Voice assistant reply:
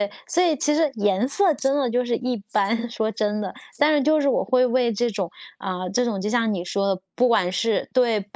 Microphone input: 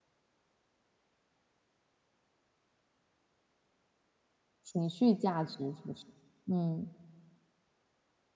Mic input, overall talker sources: user only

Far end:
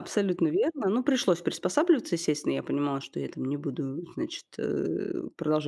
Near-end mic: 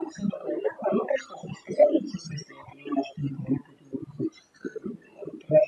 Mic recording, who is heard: echo only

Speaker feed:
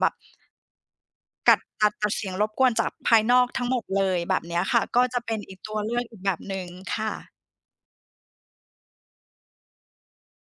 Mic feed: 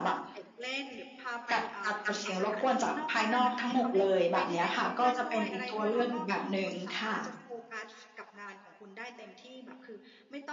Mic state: both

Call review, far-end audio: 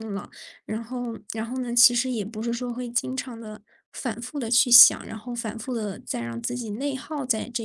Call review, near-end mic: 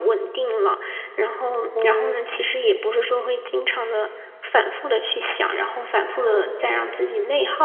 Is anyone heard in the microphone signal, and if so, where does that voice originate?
both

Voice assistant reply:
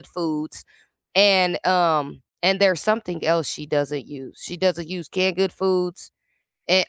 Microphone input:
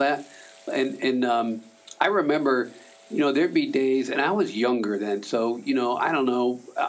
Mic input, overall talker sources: user only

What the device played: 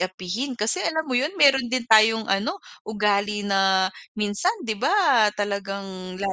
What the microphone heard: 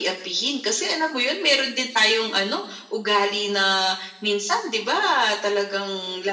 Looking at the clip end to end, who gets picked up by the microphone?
echo only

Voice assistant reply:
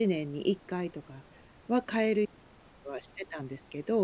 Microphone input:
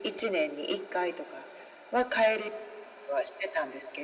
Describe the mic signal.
echo only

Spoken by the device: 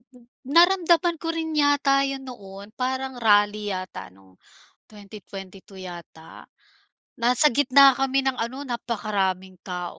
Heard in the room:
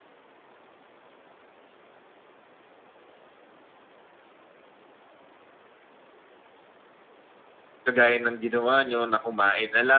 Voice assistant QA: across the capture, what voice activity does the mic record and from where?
user only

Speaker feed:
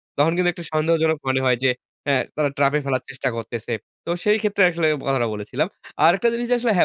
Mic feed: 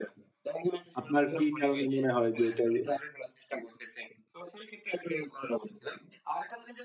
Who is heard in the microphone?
both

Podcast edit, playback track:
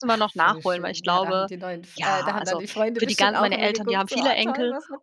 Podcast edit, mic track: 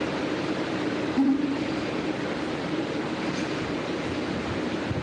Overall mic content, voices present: user only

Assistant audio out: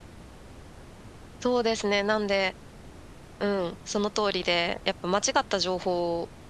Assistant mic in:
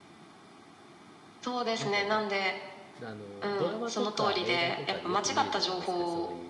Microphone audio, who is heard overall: both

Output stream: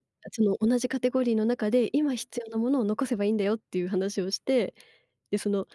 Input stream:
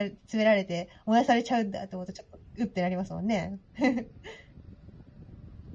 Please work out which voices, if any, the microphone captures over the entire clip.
user only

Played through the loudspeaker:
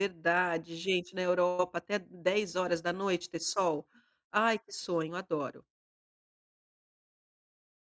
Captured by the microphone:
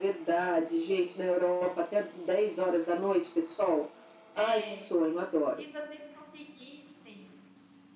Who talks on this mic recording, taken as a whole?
both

